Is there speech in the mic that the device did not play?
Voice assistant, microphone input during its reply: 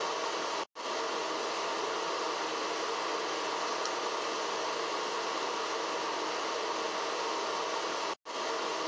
No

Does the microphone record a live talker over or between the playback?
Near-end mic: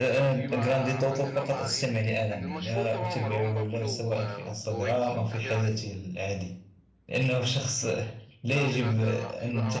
Yes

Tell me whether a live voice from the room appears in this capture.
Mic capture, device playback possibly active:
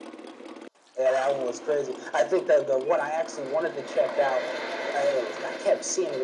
No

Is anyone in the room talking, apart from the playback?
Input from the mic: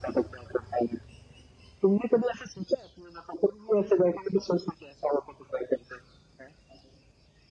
No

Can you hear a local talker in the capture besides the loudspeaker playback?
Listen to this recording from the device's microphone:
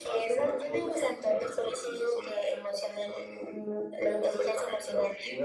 No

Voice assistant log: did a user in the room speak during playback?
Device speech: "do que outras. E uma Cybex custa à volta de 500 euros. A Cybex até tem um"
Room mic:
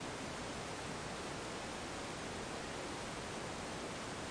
No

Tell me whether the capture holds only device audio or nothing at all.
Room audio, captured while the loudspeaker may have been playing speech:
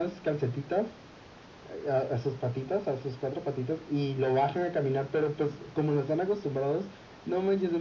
Yes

